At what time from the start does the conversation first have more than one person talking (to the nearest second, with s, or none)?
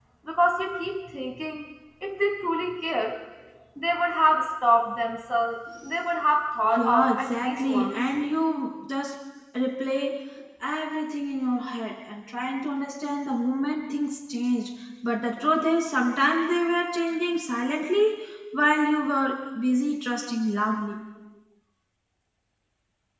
7 s